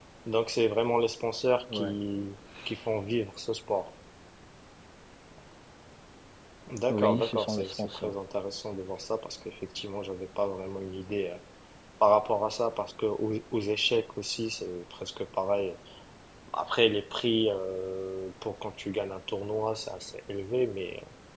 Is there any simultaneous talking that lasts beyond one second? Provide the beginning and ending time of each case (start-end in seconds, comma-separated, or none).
6.9-8.2